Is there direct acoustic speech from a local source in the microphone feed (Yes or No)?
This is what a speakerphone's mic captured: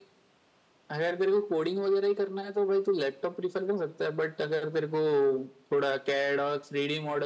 No